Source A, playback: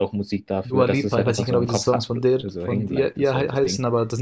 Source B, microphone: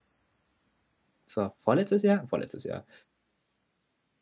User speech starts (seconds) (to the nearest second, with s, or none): 1 s